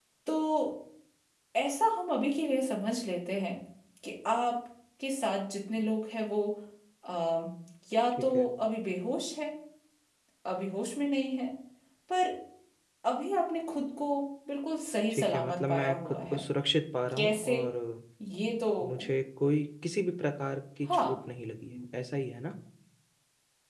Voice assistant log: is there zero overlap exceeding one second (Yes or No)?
No